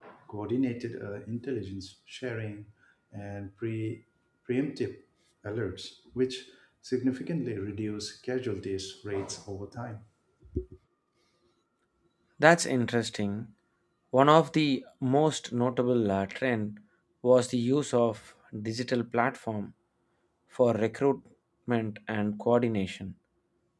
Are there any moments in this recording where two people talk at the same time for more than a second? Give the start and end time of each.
none

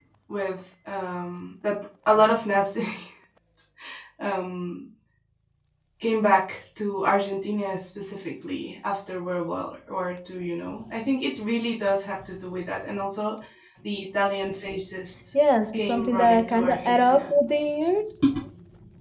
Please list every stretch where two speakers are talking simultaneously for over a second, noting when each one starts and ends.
15.7-17.3

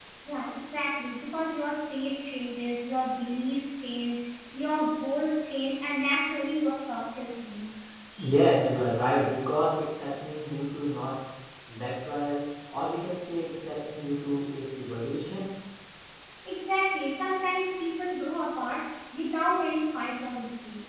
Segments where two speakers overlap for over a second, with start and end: none

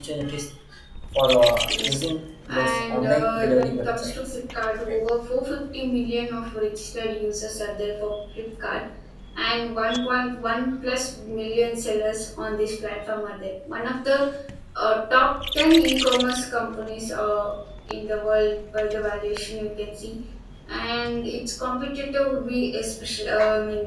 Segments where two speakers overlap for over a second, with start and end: 2.6-4.1

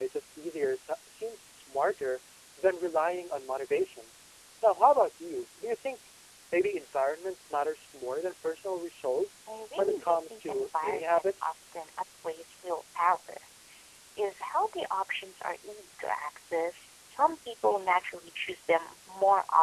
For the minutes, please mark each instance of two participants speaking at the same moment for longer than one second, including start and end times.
9.8-11.5

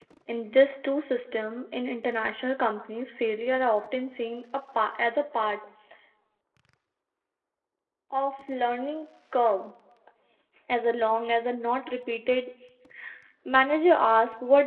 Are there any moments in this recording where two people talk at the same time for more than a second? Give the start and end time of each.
none

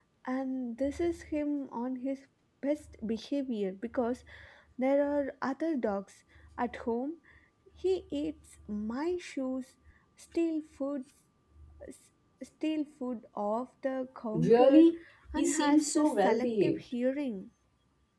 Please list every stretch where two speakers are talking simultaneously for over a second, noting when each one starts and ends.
15.4-16.8

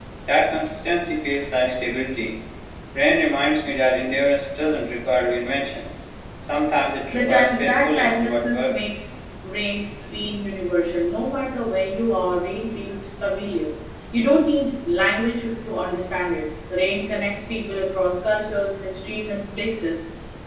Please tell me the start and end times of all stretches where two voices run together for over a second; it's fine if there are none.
7.1-8.9

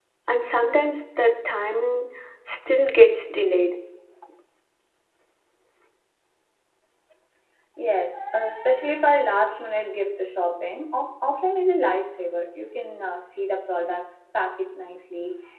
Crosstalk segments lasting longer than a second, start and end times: none

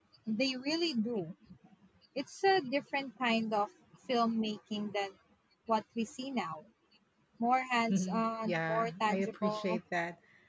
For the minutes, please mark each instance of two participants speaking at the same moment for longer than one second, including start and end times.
7.9-9.8

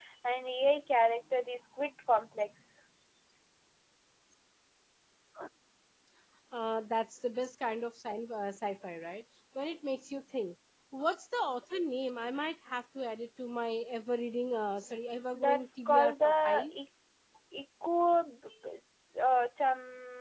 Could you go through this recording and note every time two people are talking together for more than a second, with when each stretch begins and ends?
15.3-16.7

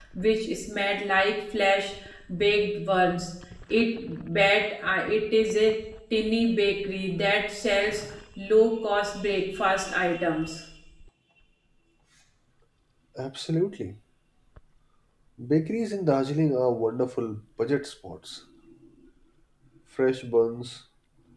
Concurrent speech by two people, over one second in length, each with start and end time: none

